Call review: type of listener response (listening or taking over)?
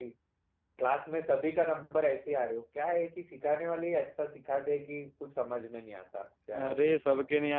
taking over